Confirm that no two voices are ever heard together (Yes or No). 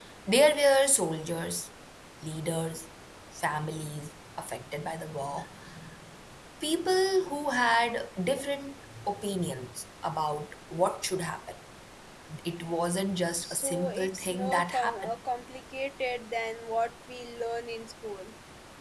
No